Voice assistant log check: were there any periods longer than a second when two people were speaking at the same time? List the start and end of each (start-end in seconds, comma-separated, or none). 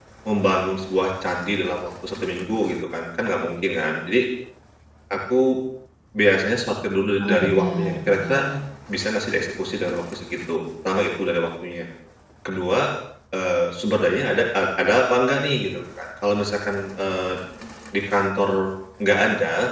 7.2-8.4